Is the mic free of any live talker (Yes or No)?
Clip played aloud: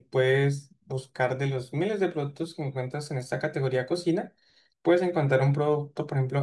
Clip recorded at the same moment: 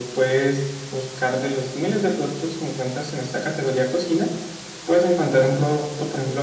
Yes